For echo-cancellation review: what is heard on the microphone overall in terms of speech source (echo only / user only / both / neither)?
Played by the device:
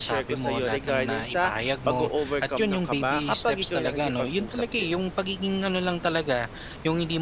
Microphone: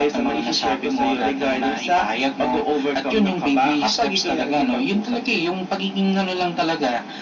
echo only